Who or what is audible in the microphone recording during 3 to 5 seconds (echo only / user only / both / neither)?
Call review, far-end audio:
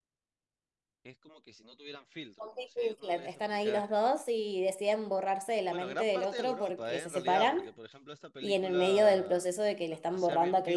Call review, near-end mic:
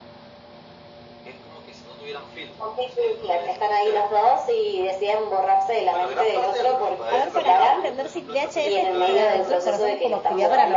echo only